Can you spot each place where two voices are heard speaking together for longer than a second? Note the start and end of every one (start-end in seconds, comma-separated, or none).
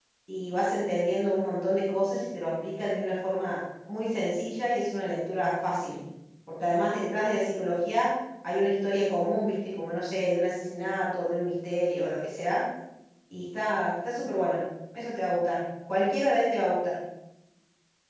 none